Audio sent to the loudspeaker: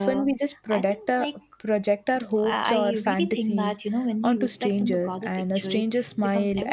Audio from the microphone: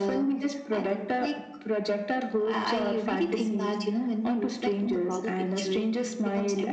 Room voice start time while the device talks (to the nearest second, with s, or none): none